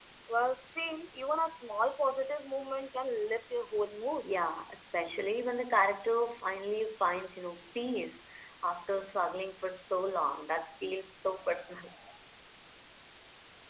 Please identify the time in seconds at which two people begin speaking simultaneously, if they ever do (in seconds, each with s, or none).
none